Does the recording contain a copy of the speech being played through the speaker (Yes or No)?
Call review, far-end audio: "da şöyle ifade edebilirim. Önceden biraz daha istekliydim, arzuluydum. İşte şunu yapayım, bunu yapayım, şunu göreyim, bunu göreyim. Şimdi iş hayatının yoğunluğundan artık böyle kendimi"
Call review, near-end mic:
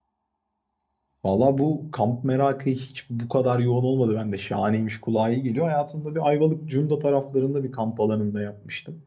No